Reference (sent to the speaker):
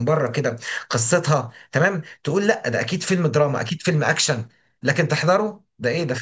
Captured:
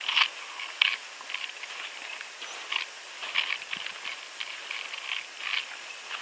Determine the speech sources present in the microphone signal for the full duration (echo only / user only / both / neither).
neither